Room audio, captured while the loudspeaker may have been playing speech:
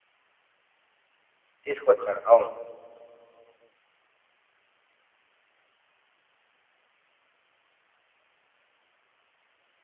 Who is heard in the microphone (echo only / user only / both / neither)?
user only